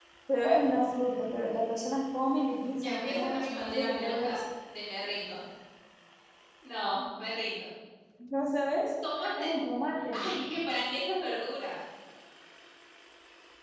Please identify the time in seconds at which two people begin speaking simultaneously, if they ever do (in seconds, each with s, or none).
2.5 s